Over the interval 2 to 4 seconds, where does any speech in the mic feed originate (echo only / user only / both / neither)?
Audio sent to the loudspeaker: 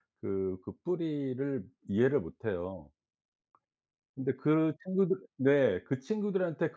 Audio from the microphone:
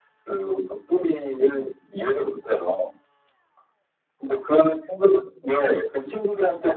echo only